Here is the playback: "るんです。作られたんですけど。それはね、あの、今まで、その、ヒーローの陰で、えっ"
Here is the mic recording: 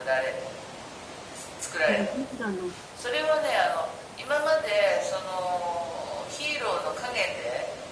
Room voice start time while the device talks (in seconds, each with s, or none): 1.8 s